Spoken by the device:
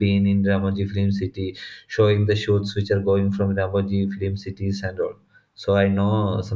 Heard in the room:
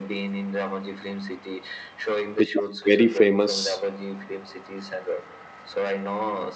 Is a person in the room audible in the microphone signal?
Yes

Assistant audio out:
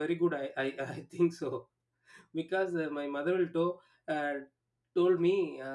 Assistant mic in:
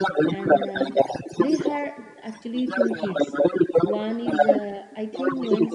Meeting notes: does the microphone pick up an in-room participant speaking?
Yes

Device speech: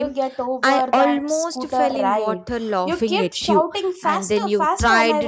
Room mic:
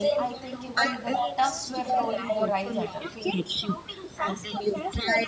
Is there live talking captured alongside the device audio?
Yes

